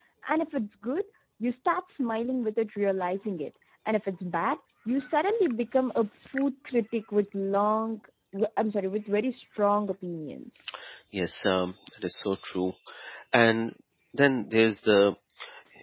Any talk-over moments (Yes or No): No